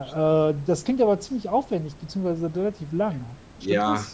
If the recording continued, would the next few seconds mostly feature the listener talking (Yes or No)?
Yes